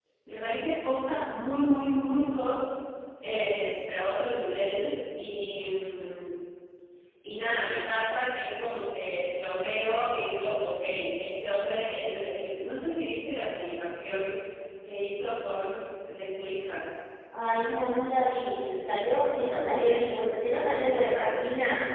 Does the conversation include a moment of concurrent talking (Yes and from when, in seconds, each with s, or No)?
No